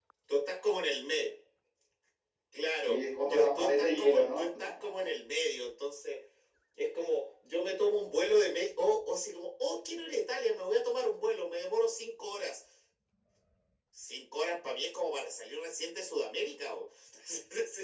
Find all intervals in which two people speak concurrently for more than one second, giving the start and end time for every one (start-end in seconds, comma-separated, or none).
2.8-4.5